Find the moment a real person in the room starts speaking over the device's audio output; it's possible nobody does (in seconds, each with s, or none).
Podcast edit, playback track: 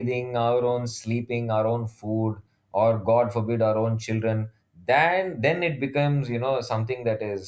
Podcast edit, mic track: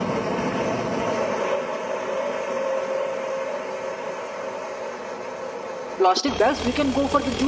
6.0 s